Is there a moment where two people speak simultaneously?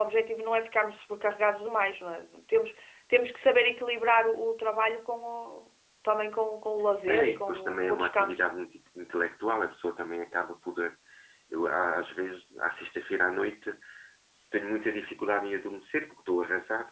Yes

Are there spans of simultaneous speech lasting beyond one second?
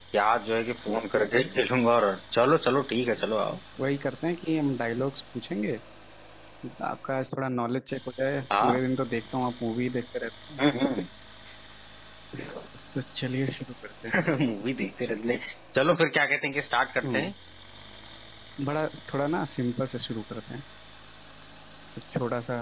No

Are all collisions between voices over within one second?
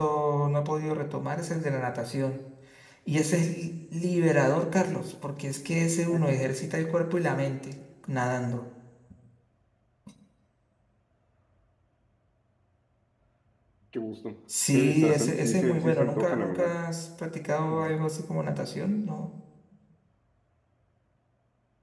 No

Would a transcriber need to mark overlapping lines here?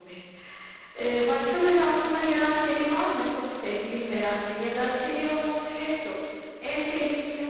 No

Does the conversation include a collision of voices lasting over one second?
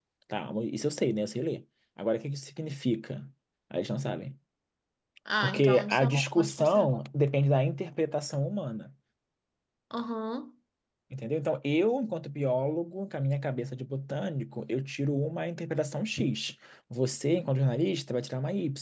Yes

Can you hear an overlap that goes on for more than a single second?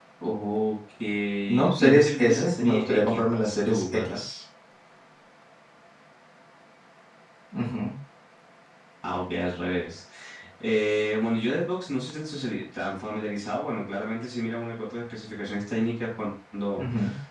Yes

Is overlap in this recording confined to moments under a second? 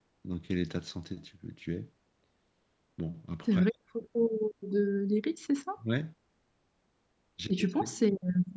Yes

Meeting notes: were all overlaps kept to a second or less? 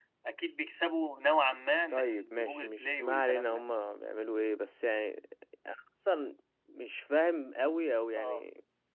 No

